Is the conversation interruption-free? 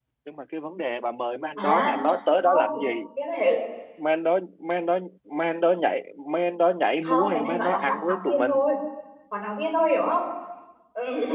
No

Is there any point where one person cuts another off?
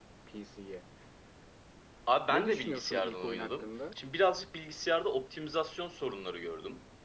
Yes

